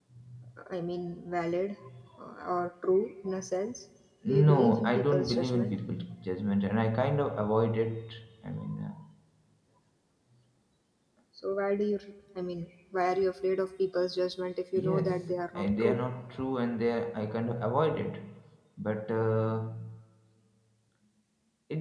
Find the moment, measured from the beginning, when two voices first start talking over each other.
4.5 s

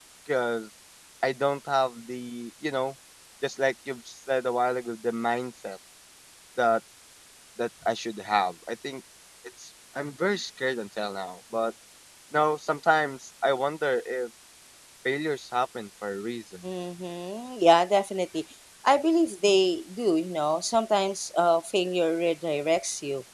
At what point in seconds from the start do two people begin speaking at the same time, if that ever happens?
none

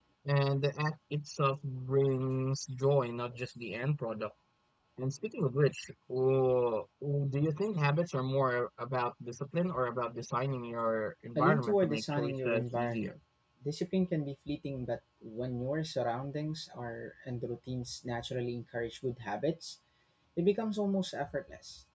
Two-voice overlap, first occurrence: 11.3 s

